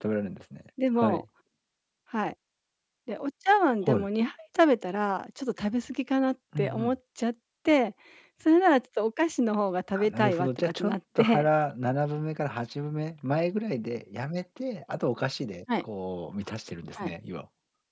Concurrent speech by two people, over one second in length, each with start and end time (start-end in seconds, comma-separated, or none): 10.0-11.5